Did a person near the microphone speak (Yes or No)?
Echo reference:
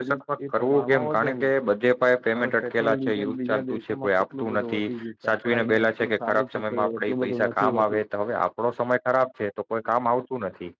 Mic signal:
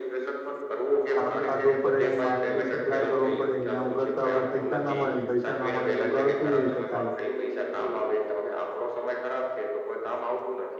Yes